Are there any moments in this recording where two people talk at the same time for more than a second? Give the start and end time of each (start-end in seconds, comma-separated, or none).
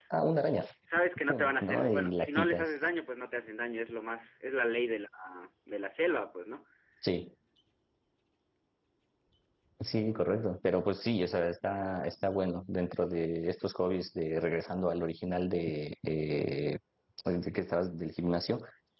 1.3-2.7